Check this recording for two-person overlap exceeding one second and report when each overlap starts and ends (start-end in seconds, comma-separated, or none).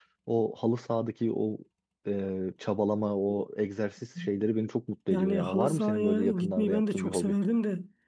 5.1-7.3